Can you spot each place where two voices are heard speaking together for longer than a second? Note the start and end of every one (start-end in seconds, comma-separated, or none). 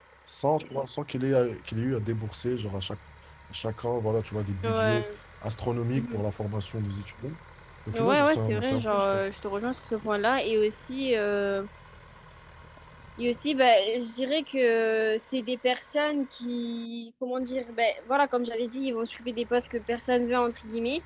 7.9-9.2